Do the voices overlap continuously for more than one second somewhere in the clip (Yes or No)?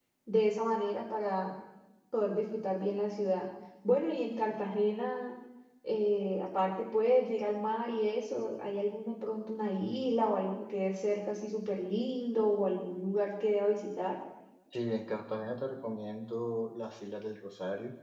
No